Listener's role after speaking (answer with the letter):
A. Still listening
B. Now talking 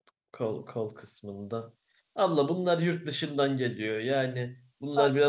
A